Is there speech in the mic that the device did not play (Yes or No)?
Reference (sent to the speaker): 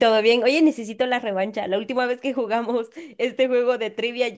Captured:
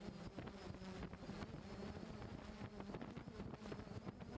No